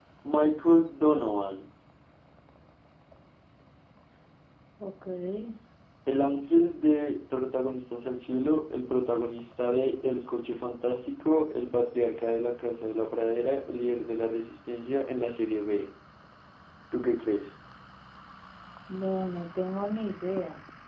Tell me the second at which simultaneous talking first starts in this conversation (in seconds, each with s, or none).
none